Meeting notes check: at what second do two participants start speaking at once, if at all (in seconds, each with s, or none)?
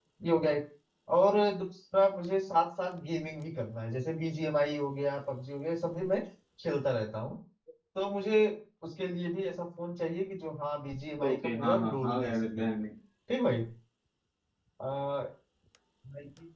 11.2 s